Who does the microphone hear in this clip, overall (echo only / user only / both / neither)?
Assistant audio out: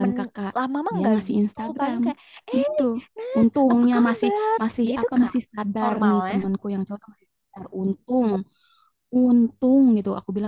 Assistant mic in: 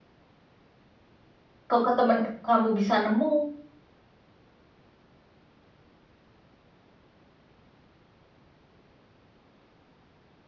user only